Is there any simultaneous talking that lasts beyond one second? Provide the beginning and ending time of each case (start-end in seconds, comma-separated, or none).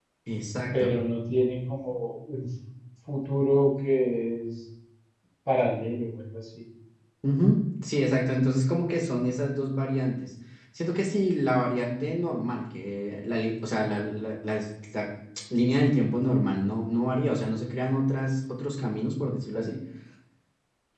none